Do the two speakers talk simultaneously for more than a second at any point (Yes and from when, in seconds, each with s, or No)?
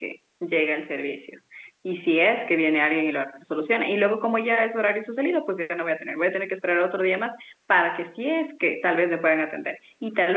No